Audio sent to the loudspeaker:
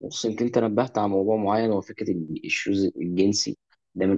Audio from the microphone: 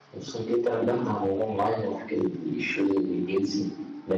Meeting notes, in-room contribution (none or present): none